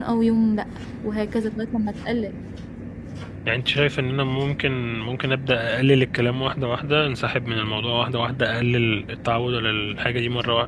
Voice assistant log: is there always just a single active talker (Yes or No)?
Yes